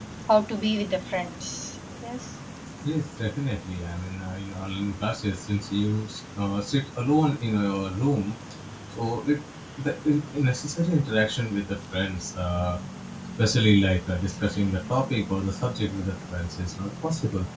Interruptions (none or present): none